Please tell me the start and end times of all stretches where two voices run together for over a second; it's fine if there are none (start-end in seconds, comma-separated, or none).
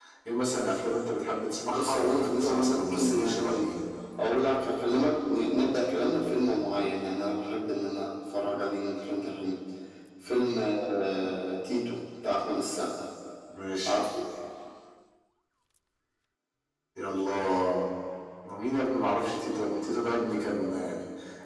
1.7-3.7